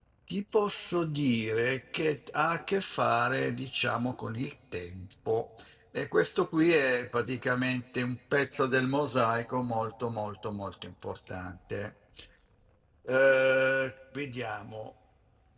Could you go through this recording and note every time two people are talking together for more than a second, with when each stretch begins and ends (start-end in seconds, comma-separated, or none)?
none